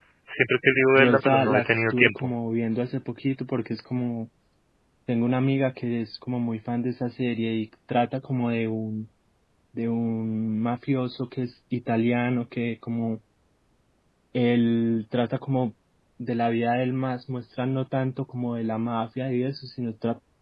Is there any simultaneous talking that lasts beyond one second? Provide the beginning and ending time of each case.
1.0-2.3

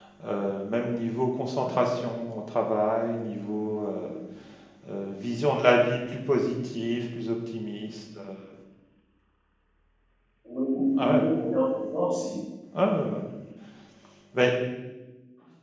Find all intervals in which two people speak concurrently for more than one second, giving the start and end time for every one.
none

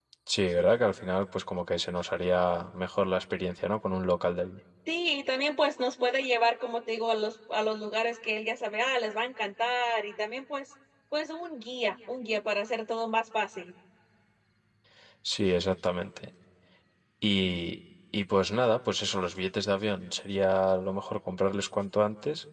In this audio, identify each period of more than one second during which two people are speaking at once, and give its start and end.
none

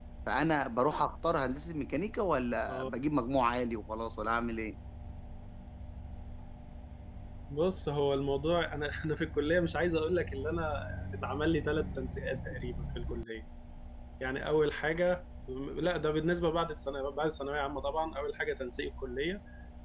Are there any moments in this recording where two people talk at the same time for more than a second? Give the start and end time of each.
none

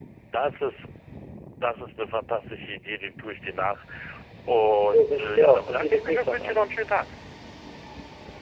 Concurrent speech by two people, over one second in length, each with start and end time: 4.9-6.7

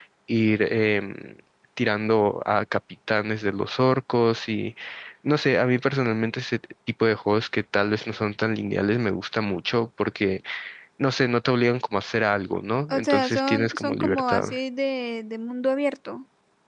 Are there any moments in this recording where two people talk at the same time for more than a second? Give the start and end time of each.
12.9-14.4

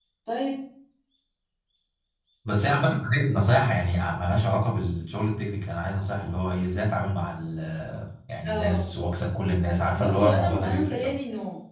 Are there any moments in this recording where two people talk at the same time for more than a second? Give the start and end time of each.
9.9-11.1

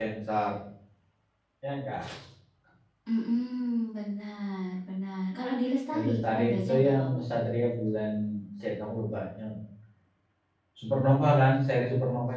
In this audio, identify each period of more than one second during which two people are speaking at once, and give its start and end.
5.9-7.2

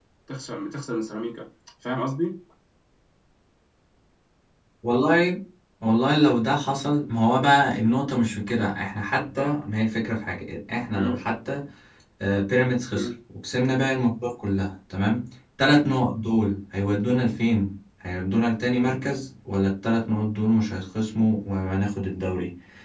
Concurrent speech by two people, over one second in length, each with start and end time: none

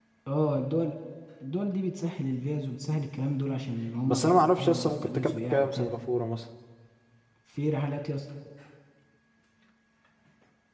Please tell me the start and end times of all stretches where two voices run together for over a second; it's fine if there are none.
4.1-5.9

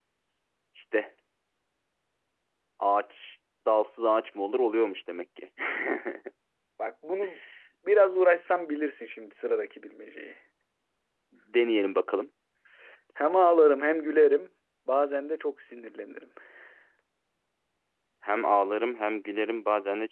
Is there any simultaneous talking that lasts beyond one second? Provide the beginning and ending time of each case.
none

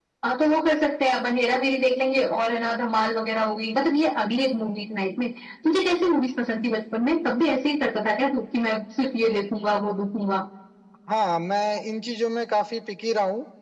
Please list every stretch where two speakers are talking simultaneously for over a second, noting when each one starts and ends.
none

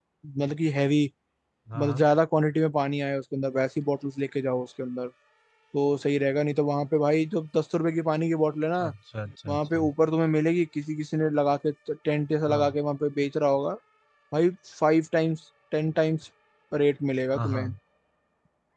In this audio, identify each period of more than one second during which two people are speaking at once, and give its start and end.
none

